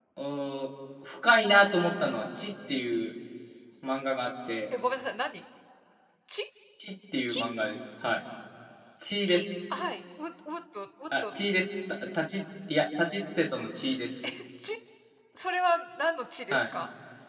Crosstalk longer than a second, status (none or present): none